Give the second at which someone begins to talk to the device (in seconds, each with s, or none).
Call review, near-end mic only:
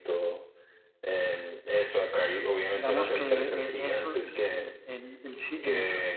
2.7 s